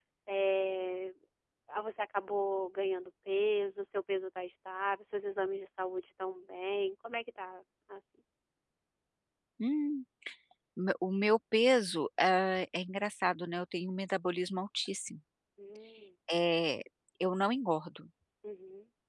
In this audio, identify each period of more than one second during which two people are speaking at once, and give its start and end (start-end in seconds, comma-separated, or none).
none